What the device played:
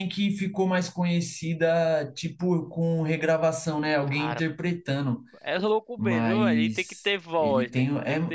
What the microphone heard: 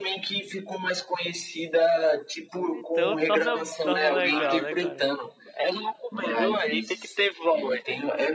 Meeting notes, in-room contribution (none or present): present